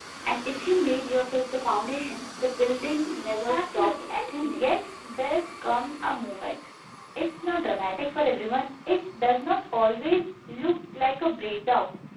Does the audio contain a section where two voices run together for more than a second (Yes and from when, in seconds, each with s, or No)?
Yes, from 3.4 s